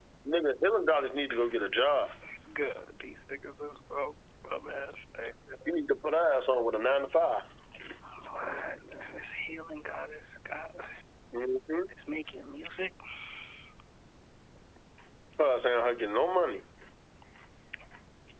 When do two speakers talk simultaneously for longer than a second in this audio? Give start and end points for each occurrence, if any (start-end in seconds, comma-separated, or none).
none